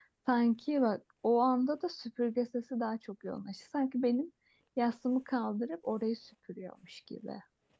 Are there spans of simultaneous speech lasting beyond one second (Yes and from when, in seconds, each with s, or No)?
No